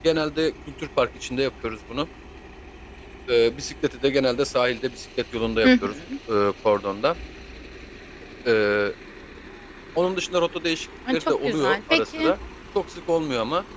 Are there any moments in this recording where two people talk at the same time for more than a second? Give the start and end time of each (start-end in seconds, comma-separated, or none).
11.1-12.3